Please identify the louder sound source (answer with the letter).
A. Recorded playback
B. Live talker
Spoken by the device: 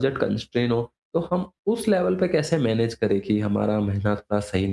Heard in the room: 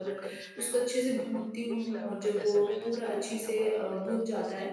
B